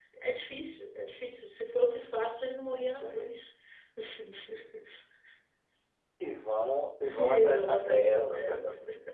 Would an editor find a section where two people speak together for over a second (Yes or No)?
Yes